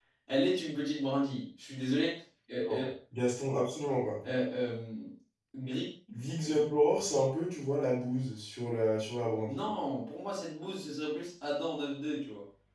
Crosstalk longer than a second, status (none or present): none